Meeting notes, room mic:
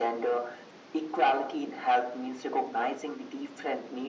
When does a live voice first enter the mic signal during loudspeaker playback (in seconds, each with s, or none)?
none